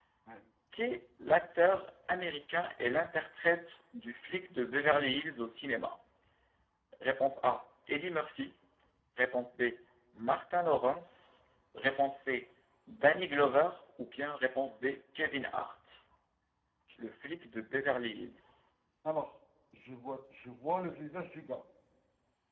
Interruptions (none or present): none